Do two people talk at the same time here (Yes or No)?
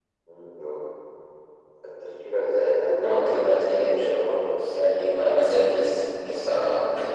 Yes